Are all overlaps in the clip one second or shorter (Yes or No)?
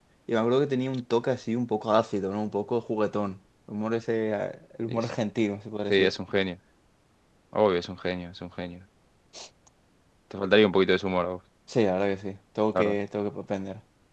Yes